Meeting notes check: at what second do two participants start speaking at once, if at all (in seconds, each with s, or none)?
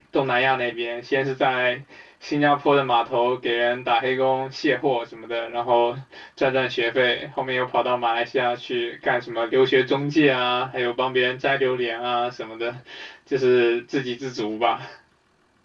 none